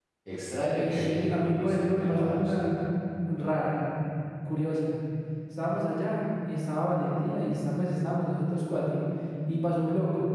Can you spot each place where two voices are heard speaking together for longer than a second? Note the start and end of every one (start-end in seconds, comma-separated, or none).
0.8-2.5